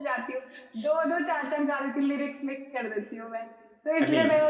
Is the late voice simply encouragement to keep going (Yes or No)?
Yes